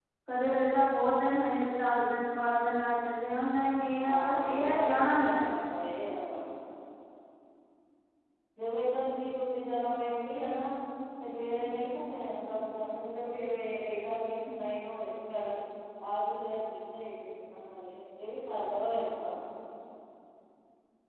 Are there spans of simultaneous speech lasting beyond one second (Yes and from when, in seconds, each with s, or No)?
Yes, from 4.0 s